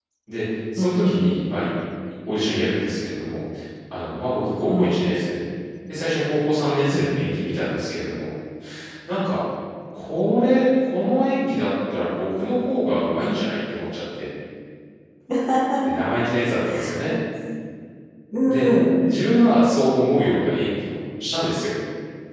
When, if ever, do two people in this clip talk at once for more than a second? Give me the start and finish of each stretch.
none

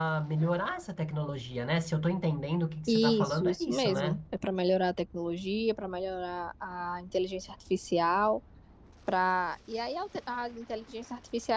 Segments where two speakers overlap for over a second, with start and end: 2.9-4.2

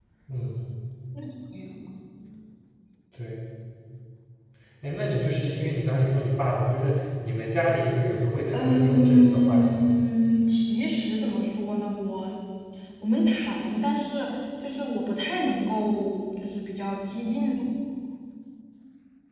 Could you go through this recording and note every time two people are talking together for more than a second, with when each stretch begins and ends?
8.5-9.9

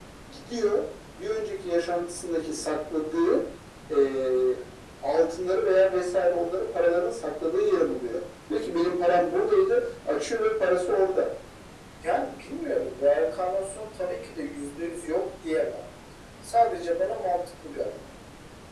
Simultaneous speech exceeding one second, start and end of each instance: none

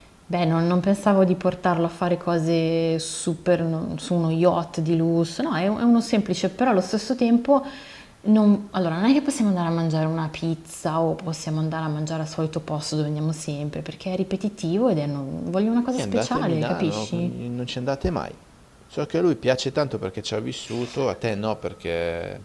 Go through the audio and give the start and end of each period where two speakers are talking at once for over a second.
15.9-17.3

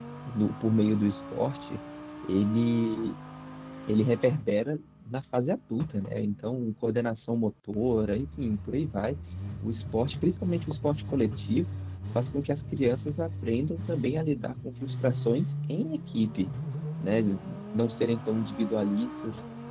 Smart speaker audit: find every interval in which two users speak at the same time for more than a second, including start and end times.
none

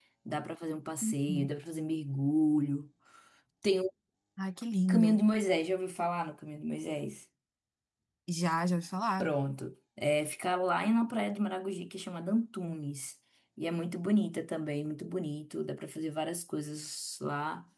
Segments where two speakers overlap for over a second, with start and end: none

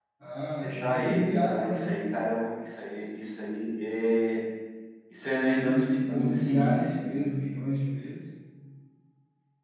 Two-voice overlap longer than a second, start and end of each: 0.6-1.9, 5.5-7.3

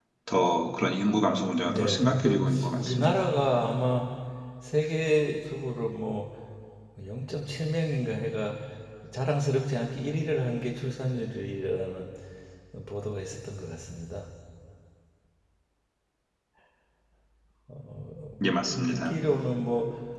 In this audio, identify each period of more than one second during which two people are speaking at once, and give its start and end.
1.6-3.3

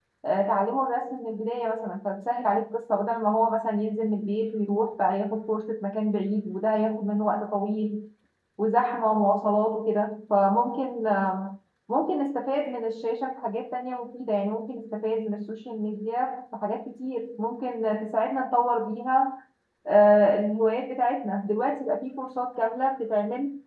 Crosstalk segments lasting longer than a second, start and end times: none

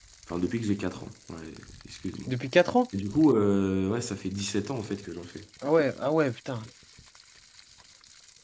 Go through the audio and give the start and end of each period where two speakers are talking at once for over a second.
none

